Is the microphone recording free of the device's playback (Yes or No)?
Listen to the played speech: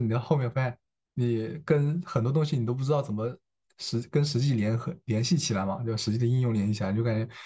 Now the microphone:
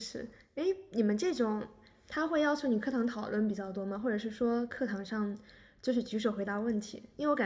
Yes